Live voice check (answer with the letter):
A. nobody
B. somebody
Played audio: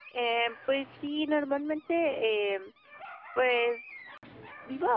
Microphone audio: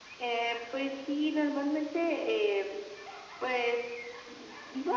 A